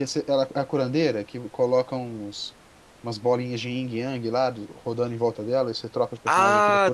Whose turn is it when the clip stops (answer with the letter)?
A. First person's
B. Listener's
B